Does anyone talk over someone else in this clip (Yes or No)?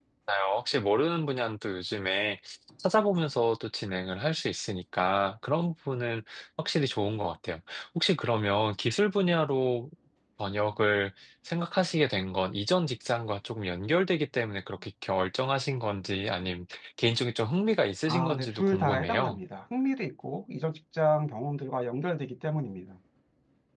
Yes